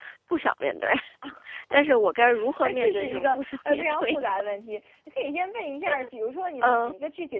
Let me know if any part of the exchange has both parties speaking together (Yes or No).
Yes